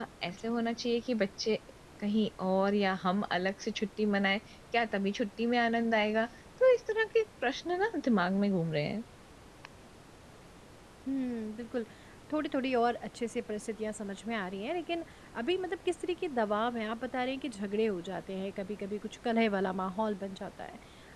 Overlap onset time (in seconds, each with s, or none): none